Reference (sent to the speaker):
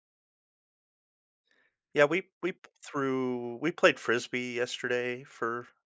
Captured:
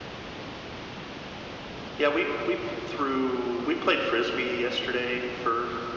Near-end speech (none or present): none